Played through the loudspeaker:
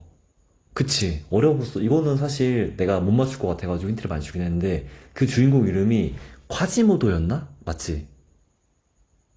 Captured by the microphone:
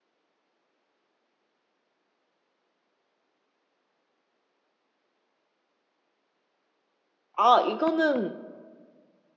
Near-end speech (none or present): present